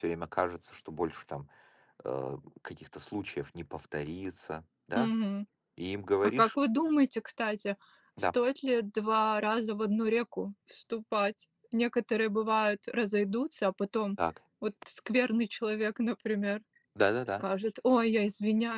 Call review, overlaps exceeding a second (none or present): none